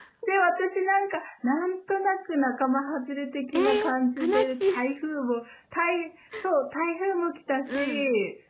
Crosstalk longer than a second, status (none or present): present